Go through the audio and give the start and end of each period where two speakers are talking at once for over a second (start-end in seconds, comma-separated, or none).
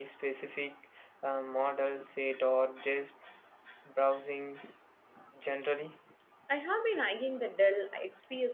none